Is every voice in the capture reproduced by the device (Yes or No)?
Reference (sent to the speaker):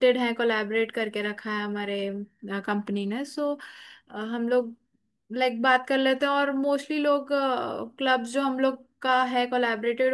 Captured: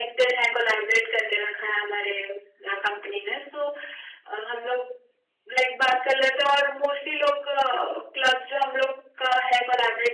Yes